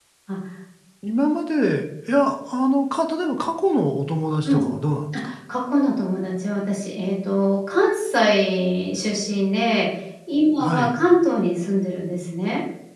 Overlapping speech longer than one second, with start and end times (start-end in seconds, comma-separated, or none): none